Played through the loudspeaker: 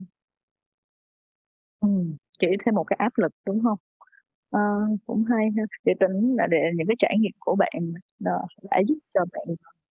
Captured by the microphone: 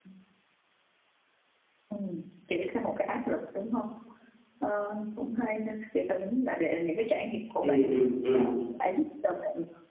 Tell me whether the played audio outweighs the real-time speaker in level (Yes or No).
No